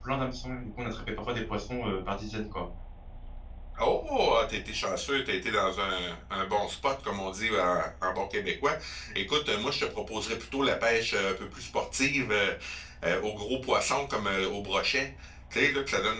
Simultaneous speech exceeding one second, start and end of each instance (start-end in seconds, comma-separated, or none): none